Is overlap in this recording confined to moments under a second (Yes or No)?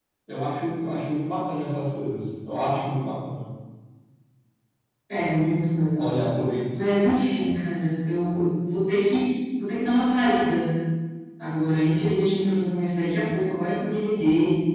Yes